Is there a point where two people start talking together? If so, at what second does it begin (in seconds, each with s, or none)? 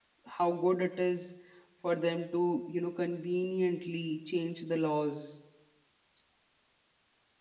none